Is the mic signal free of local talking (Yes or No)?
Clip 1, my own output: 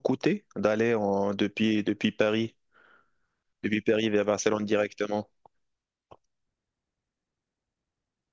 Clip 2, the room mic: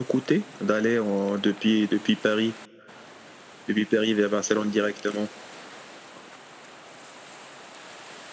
Yes